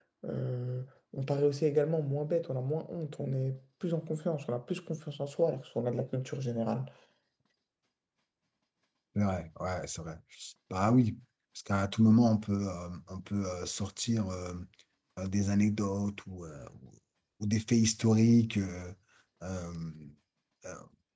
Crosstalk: none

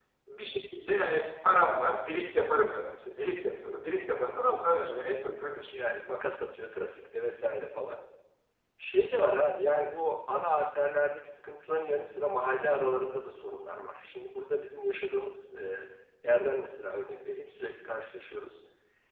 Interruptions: none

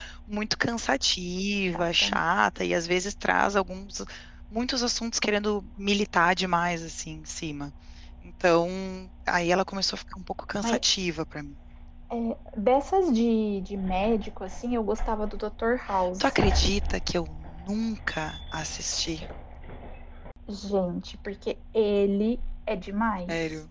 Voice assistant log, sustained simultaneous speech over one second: none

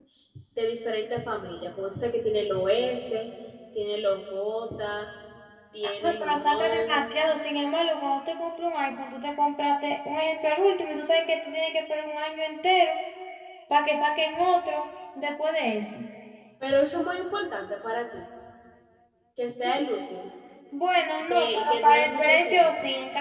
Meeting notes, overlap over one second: present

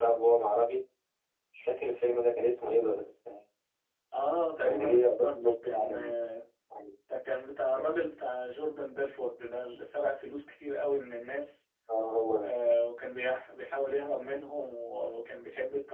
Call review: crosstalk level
present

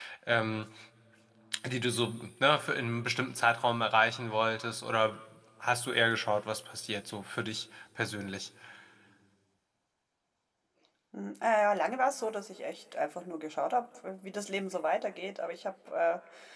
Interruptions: none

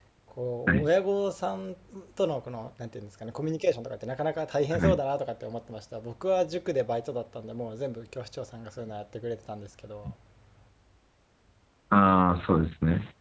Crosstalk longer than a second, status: none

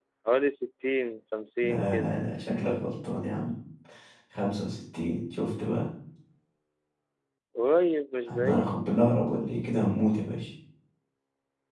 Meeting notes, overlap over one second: none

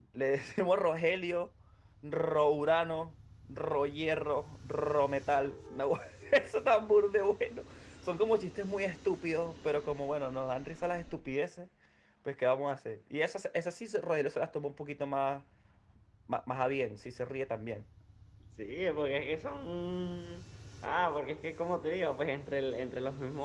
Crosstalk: none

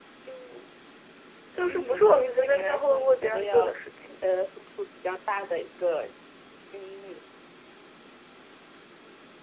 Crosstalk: present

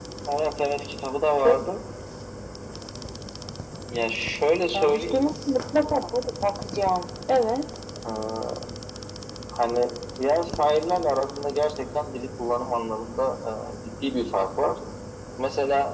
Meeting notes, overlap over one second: none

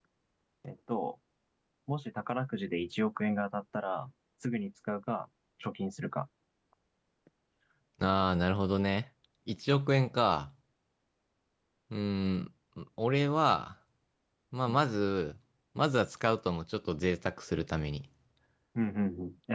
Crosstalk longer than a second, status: none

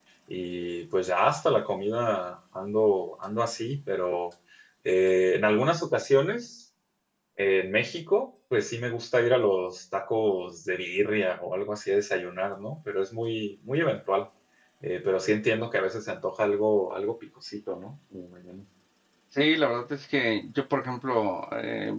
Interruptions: none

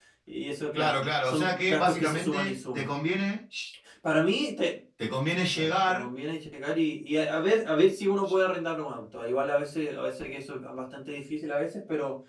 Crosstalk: present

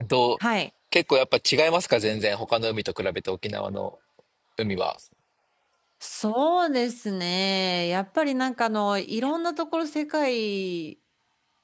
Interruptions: none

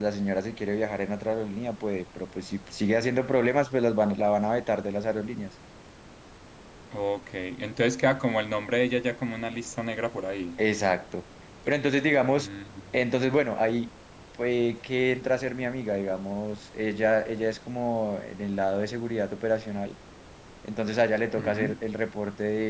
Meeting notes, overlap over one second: none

